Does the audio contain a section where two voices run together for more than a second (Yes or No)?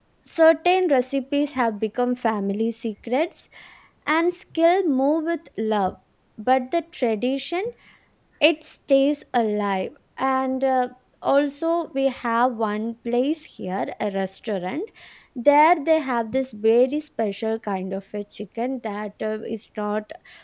No